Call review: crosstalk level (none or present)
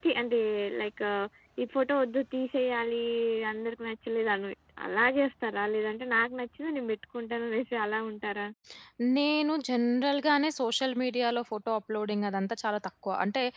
none